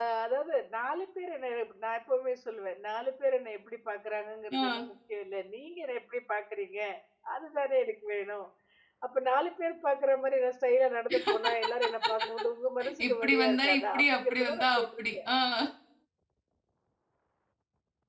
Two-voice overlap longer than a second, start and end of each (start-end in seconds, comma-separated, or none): 13.1-15.2